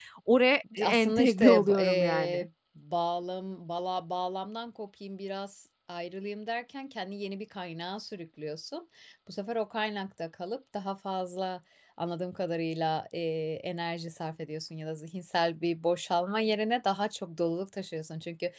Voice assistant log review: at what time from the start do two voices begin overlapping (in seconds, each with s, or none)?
0.8 s